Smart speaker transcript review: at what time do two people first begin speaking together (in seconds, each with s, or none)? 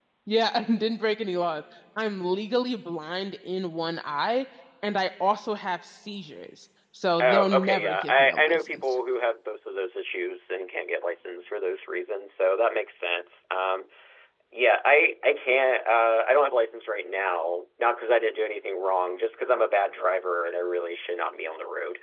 7.2 s